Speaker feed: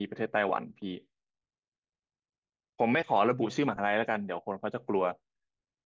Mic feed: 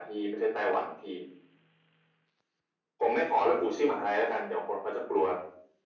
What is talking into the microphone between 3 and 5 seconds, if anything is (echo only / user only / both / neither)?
echo only